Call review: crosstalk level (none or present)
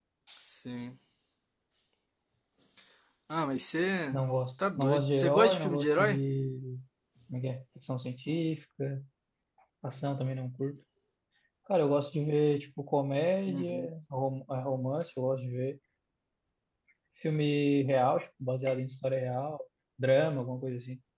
present